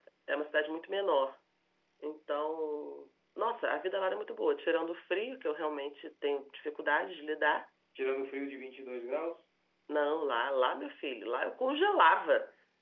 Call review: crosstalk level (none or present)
none